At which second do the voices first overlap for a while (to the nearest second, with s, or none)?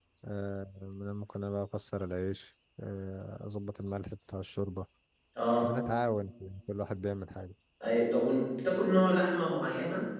none